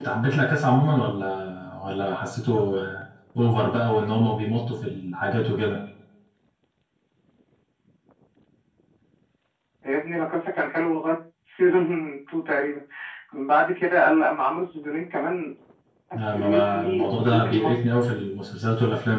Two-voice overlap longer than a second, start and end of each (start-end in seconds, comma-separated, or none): 16.2-17.7